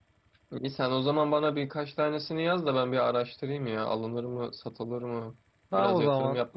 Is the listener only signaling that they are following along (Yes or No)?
No